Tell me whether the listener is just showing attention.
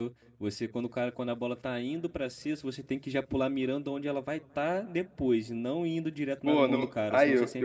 No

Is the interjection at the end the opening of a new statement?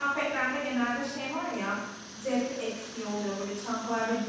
No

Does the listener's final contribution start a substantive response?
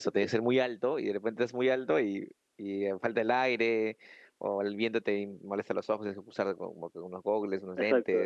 Yes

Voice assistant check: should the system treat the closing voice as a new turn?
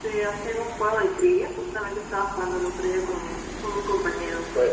Yes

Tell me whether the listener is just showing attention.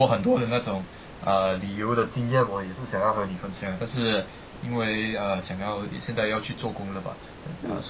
Yes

